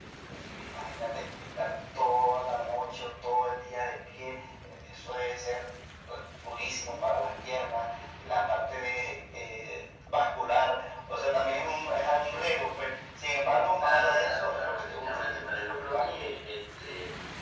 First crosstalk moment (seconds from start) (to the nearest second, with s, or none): 14 s